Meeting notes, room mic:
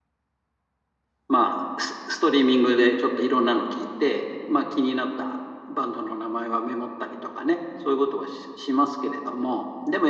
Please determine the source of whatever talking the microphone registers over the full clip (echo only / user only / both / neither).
user only